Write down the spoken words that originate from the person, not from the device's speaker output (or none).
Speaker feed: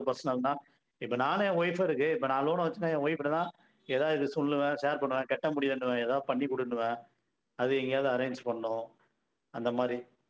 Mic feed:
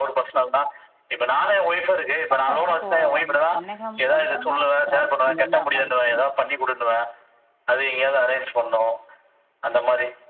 பக்க எனக்கு ஒ ஒன்னே ஒன்னேகம் ஒன்றரை மணி நேரோ டிராவல் இங்க இருந்து அம்மா வீட்டுக்கு எனக்கு